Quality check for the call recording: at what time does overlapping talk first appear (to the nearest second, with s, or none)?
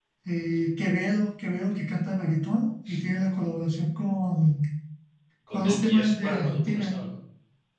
6 s